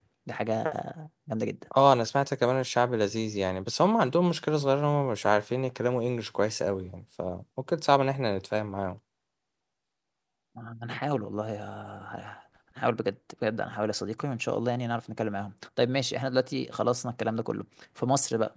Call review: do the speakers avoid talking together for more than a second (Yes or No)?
Yes